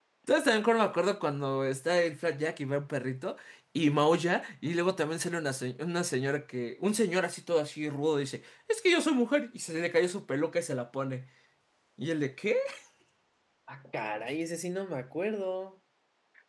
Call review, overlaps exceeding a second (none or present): none